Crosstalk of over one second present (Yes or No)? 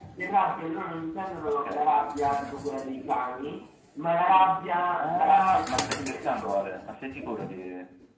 Yes